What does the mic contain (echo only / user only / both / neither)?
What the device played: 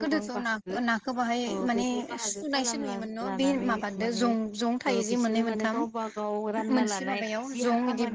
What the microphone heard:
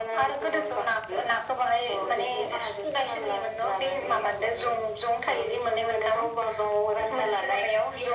echo only